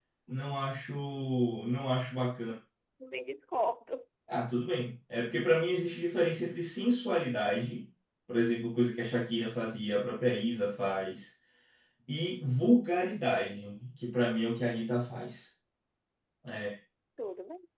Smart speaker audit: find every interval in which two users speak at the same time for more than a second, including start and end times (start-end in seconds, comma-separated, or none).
none